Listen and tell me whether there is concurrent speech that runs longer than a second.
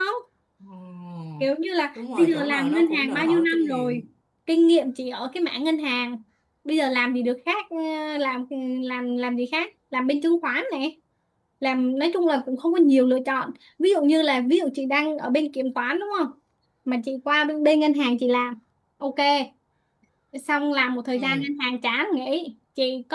Yes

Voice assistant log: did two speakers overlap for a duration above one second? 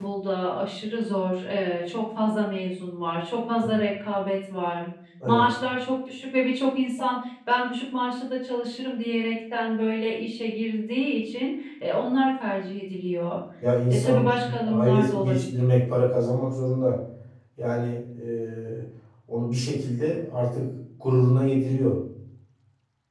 Yes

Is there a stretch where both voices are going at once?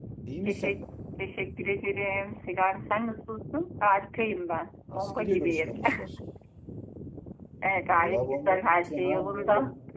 Yes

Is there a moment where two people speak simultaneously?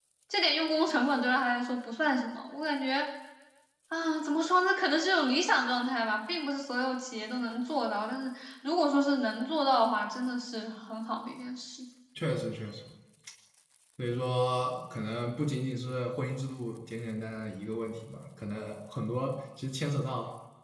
No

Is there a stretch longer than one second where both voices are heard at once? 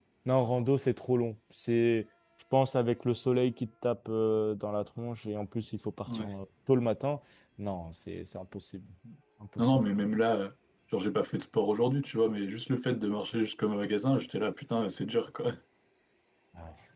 No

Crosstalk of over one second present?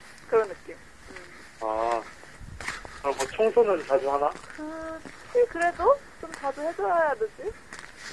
No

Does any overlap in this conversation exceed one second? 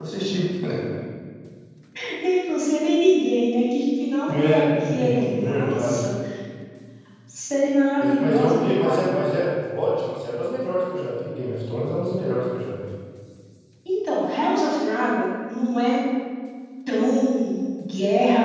Yes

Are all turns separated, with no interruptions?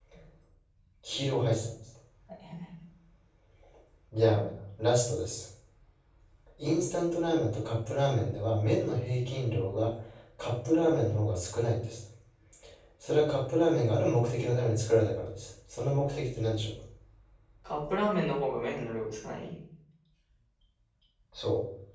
Yes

